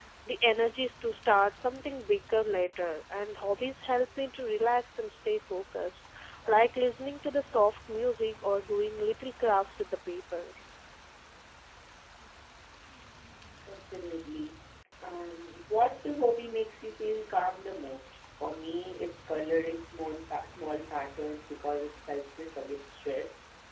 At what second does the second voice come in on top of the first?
none

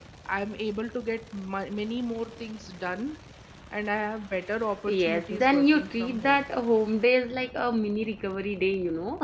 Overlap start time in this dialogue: 5 s

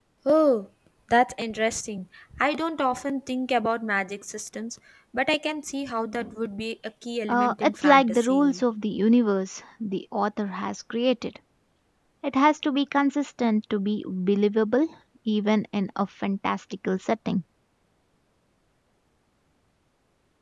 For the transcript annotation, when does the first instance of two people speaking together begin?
7 s

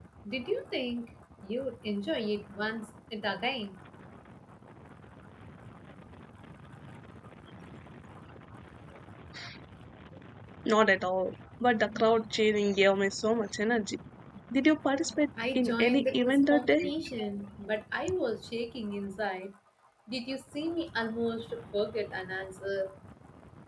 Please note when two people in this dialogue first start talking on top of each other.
15 s

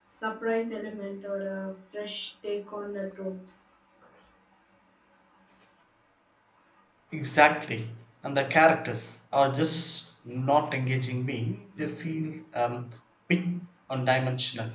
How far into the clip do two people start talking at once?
none

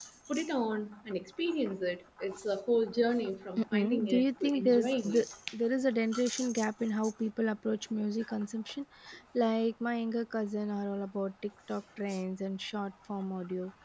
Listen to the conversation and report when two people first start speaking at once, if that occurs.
4 s

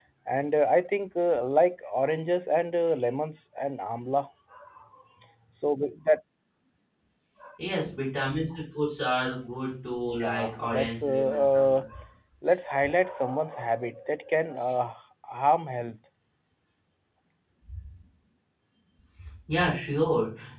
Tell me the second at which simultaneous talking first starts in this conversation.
10 s

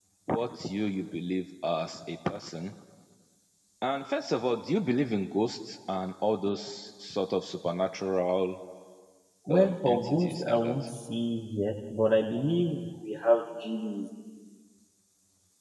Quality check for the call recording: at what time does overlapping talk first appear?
10 s

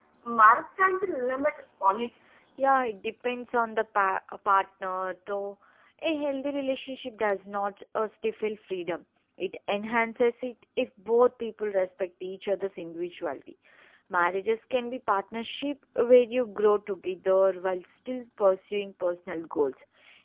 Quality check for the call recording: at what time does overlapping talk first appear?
none

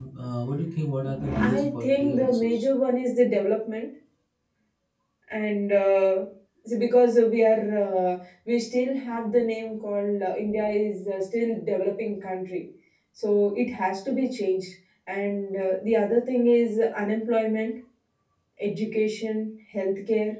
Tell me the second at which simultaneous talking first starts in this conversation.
1 s

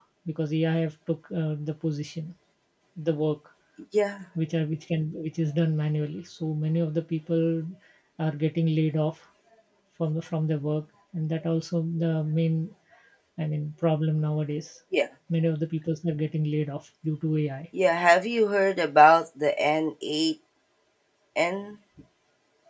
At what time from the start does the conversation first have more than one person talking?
none

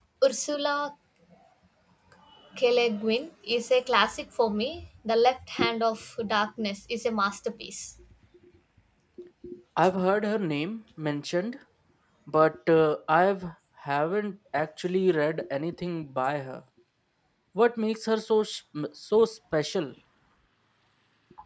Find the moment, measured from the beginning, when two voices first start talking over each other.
none

